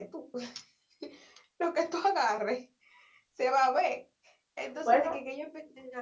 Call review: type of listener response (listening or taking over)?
listening